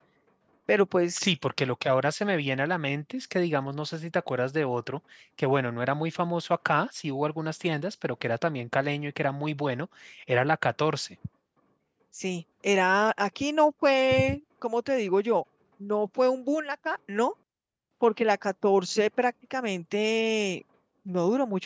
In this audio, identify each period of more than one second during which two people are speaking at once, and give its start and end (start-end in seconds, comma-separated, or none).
none